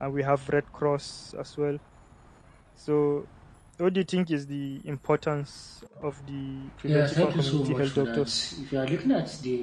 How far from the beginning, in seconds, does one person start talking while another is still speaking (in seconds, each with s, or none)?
6.9 s